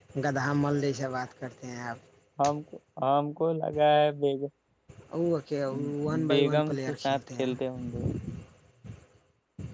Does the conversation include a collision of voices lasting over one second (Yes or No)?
Yes